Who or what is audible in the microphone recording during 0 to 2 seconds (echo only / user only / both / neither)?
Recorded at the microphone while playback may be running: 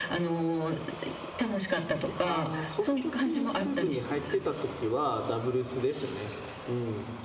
echo only